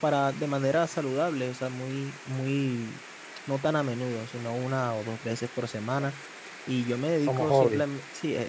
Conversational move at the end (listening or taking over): listening